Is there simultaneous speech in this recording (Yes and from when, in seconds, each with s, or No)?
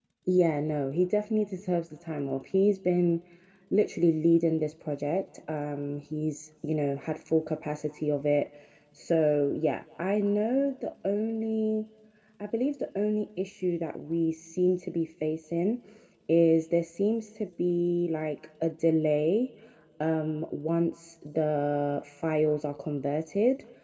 No